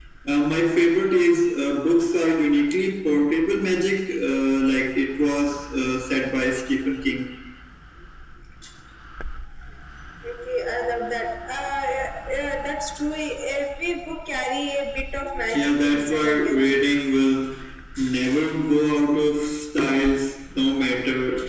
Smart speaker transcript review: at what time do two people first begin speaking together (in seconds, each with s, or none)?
15.5 s